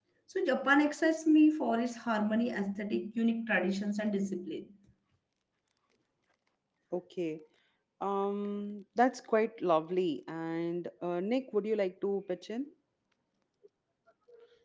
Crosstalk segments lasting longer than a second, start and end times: none

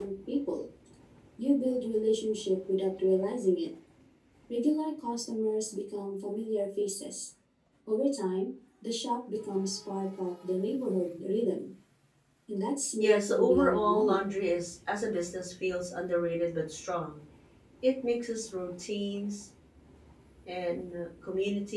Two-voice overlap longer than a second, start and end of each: 13.0-14.2

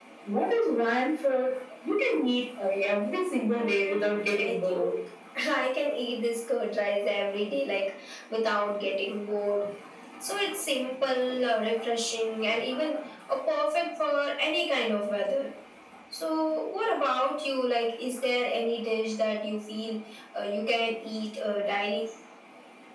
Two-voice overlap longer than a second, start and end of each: 3.5-5.0

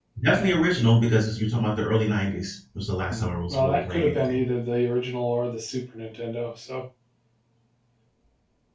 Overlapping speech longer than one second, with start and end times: 3.1-4.4

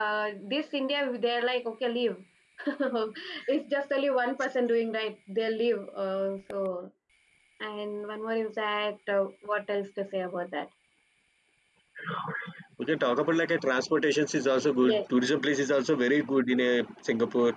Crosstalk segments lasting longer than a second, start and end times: none

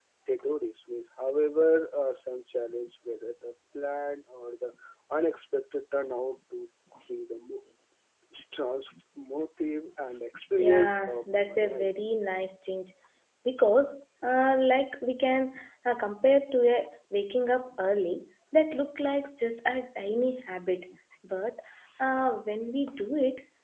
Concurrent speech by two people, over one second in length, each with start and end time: 10.6-11.9

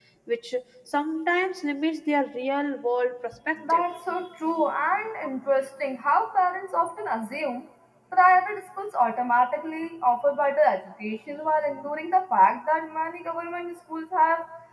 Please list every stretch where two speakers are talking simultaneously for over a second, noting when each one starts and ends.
none

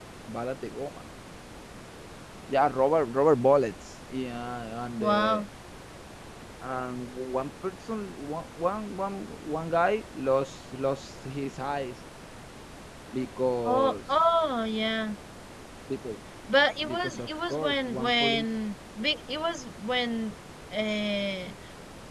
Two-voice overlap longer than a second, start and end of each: 16.9-18.5

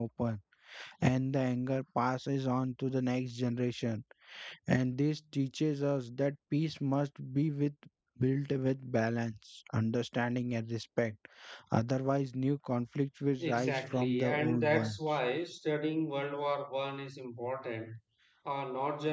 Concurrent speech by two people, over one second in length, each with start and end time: 13.4-15.0

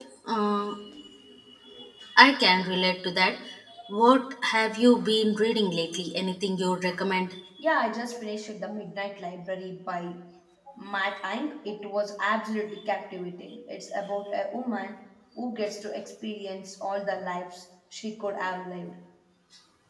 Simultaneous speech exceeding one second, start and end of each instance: none

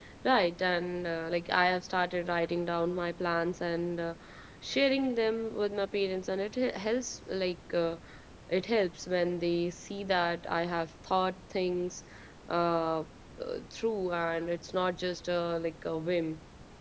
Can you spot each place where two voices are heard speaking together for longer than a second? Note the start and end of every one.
none

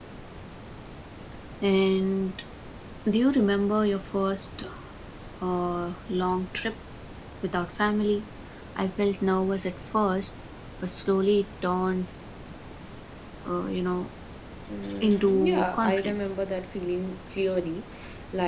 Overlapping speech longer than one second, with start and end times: 15.0-16.4

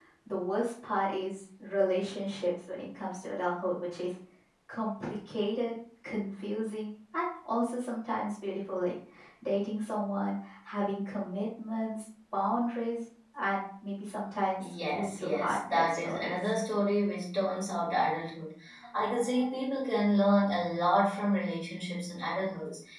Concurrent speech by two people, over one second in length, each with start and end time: 14.6-16.5

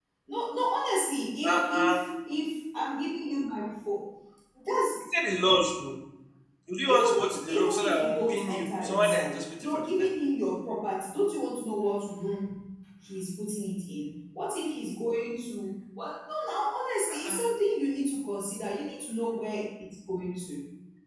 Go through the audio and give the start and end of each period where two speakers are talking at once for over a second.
6.8-10.1

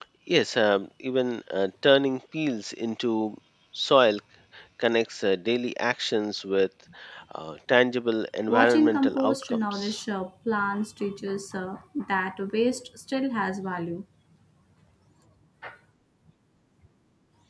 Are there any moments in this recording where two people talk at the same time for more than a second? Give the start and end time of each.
8.5-10.0

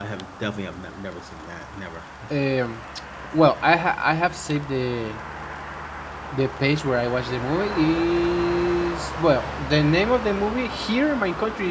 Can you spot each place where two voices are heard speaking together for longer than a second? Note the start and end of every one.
none

